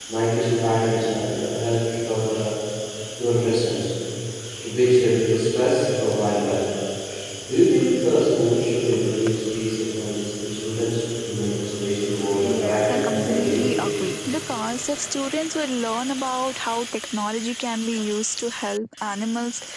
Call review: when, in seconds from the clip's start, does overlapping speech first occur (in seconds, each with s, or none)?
12.4 s